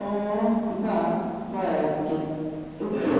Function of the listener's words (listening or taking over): listening